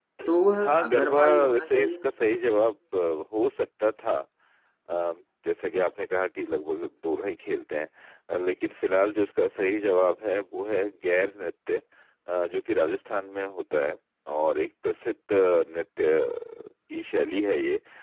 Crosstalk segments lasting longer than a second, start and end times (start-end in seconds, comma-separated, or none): 0.6-2.0